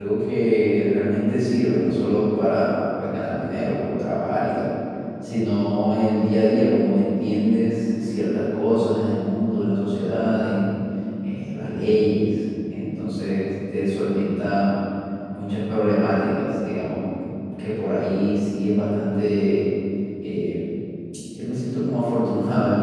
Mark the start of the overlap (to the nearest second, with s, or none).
none